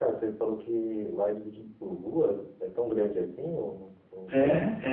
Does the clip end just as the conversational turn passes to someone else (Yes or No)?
Yes